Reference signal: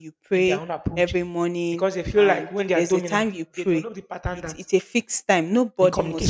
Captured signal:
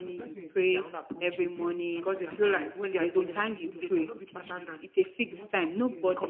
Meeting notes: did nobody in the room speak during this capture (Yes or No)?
No